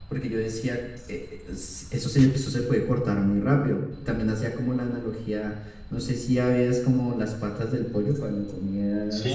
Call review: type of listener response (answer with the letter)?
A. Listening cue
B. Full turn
B